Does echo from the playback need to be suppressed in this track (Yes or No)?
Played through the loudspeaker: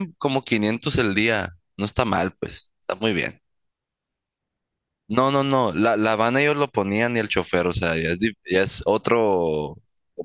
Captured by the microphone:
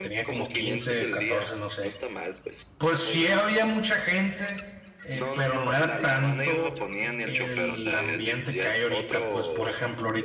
Yes